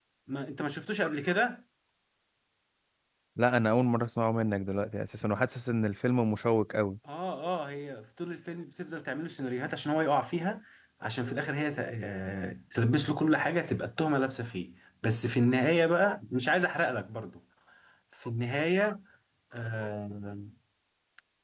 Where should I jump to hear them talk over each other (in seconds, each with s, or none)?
none